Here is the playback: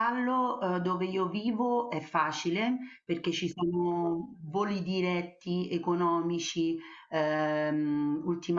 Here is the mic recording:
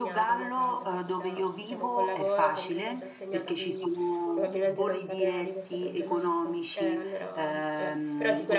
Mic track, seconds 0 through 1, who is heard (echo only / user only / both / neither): both